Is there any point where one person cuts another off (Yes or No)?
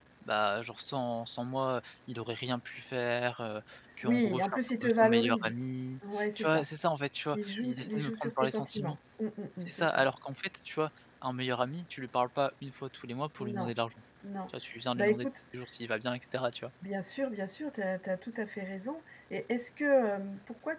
Yes